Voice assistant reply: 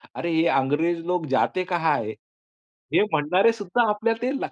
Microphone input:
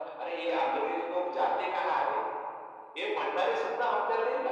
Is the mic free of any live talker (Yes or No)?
Yes